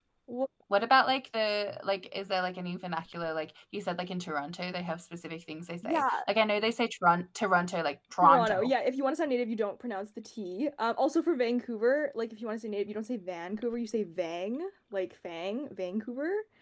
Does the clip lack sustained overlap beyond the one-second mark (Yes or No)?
Yes